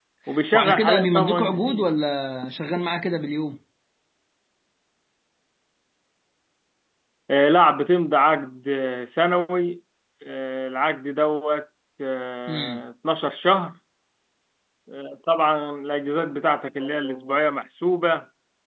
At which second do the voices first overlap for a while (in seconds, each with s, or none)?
0.5 s